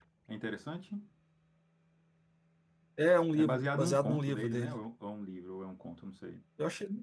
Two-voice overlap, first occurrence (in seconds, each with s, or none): 3.4 s